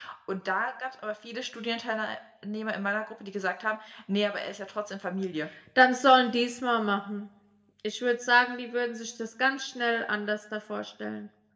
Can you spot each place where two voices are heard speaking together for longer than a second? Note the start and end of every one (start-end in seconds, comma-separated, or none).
none